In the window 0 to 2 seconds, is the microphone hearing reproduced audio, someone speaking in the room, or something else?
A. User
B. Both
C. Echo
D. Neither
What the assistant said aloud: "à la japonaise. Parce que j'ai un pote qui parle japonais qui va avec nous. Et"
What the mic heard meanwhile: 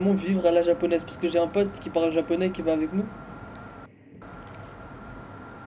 C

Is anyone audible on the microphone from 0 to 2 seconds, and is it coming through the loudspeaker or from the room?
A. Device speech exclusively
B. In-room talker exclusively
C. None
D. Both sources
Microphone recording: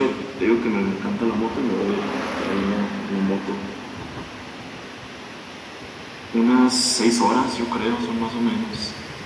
A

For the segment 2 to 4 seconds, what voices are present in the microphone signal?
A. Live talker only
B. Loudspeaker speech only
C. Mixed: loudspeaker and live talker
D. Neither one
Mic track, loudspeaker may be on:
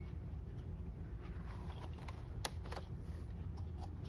D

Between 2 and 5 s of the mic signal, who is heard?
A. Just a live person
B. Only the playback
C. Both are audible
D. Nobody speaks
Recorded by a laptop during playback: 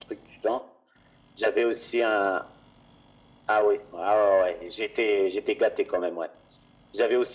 B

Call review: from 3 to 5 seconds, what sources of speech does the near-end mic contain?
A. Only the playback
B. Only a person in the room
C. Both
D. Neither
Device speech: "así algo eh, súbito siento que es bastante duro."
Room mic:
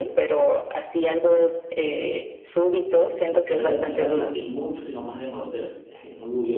C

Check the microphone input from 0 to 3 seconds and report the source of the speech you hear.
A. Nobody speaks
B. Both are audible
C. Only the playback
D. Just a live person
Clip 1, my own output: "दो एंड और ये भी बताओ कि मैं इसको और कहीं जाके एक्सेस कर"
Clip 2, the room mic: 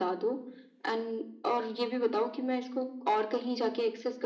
C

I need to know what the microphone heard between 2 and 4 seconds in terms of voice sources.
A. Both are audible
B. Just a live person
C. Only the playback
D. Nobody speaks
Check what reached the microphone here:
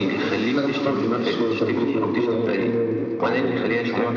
A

